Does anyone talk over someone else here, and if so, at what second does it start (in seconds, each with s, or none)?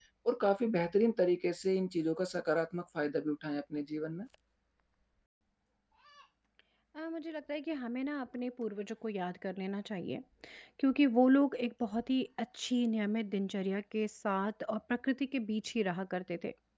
none